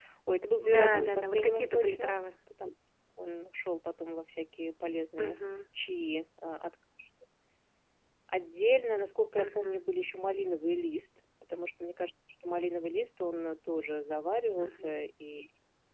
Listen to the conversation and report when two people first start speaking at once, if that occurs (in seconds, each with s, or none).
0.6 s